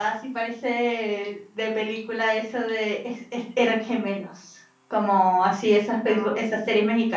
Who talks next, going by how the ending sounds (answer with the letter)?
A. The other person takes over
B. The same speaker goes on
B